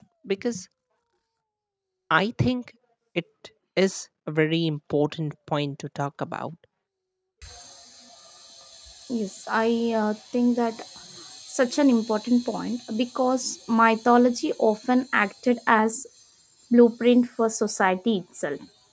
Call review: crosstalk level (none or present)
none